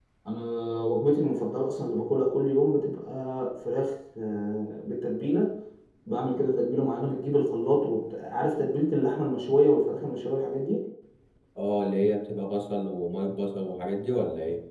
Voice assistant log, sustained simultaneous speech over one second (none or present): none